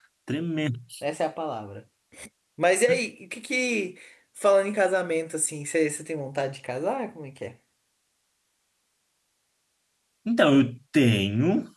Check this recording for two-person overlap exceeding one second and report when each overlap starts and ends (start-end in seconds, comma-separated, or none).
none